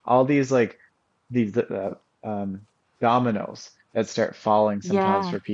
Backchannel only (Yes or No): Yes